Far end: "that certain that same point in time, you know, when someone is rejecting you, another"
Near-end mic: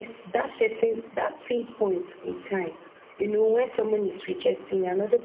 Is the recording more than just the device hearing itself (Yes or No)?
No